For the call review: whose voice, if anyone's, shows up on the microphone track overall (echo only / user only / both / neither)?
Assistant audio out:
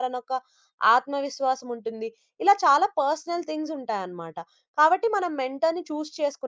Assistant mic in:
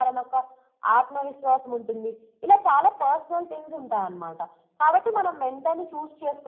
echo only